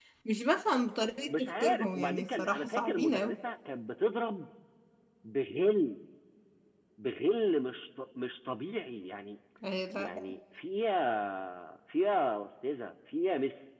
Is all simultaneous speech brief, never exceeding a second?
No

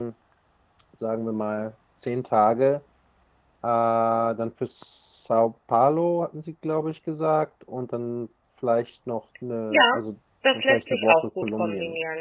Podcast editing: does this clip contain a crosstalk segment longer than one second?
Yes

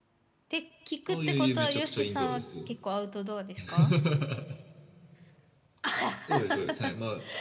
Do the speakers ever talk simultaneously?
Yes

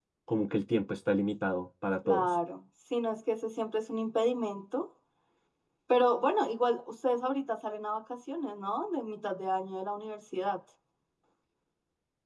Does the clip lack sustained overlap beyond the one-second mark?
Yes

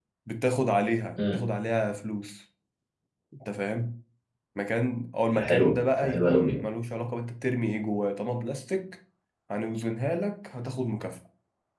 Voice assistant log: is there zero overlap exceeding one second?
No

